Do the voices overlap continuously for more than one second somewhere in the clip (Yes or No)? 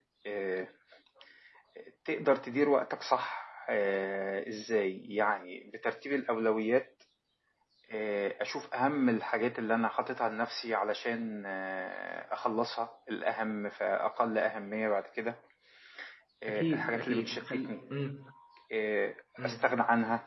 Yes